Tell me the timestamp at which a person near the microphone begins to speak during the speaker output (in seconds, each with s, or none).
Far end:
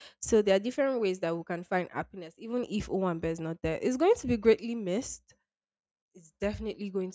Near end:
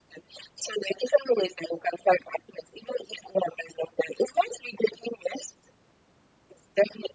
none